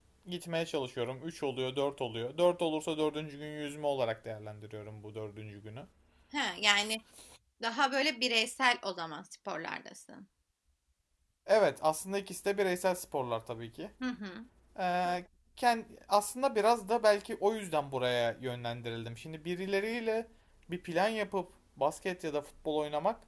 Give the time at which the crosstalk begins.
none

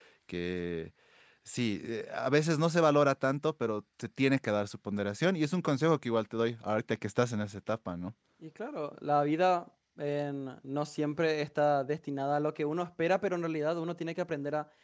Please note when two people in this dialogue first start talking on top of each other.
none

